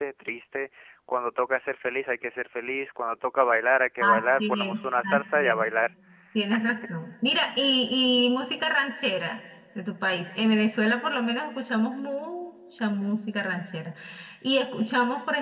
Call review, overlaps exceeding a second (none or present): present